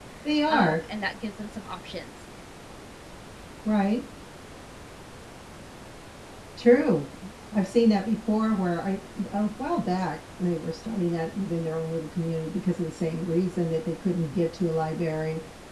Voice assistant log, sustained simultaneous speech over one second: none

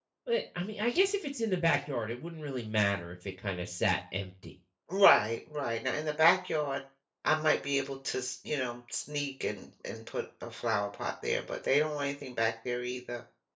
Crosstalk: none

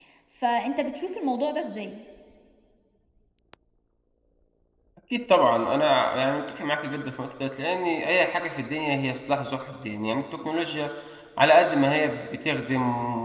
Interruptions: none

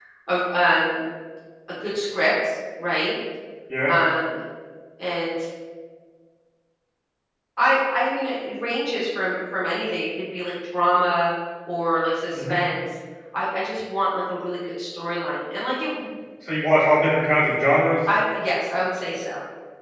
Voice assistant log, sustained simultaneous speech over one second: none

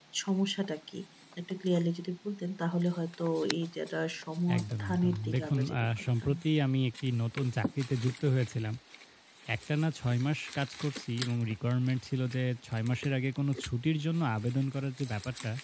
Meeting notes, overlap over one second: present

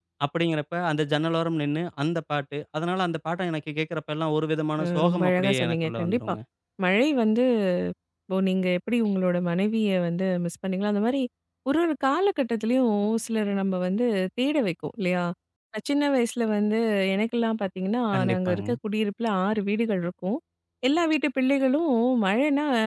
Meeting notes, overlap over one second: present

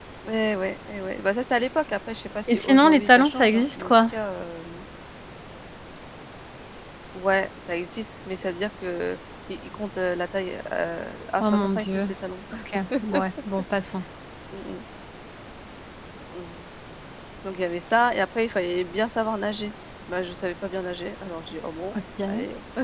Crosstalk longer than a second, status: present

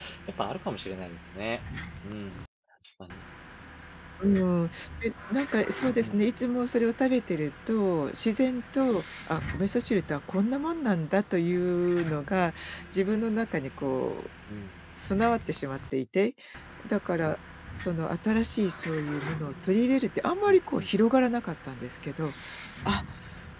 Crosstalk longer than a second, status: none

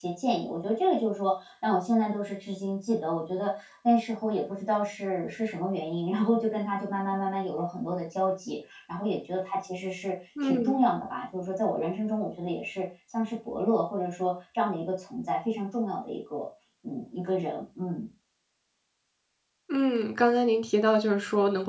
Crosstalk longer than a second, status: none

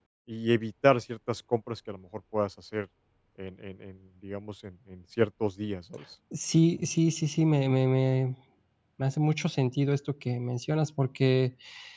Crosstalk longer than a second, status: none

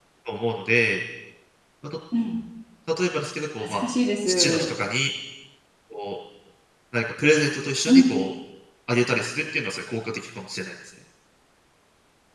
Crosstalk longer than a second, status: none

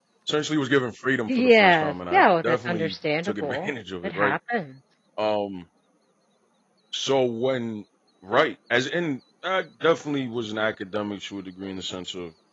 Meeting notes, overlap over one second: present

